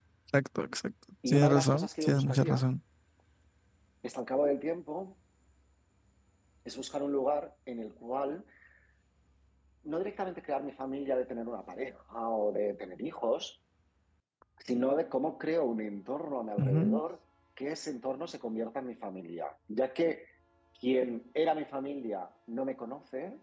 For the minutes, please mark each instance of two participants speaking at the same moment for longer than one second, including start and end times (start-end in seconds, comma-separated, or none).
1.3-2.6